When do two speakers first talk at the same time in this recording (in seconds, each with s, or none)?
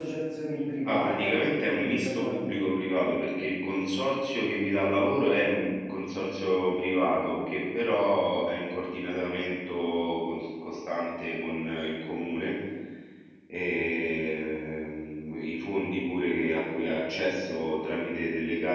0.8 s